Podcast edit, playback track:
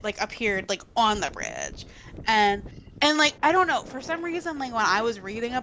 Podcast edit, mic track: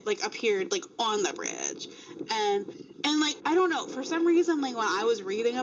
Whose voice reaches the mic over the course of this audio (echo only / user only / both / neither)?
echo only